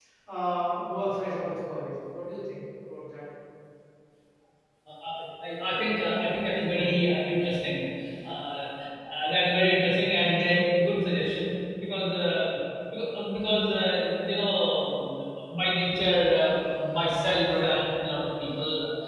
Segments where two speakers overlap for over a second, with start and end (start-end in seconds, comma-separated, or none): none